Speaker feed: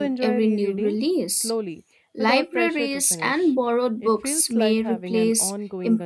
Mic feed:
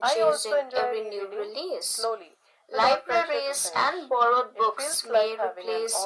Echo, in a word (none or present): present